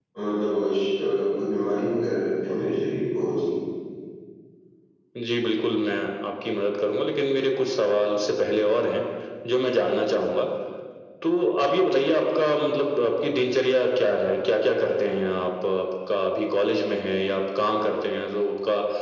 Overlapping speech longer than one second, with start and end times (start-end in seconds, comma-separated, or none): none